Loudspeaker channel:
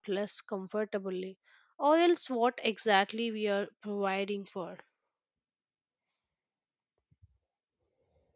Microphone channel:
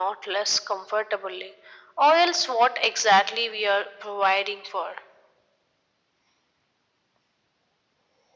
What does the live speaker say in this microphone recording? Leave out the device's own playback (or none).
none